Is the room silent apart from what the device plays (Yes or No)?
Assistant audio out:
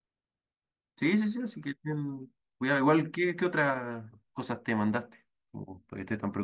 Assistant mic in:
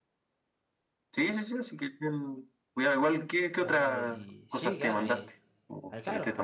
No